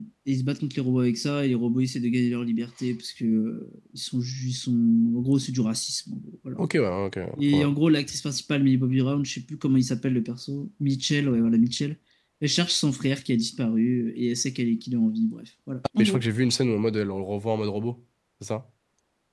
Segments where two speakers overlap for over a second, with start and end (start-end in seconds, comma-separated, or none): none